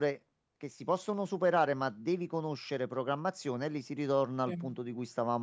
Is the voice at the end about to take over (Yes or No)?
No